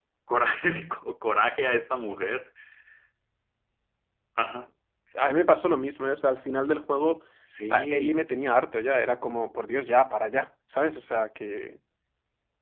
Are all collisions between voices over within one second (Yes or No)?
Yes